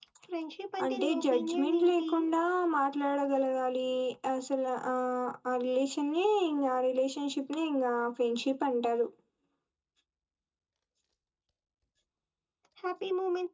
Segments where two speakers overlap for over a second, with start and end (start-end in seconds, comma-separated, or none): 0.8-2.1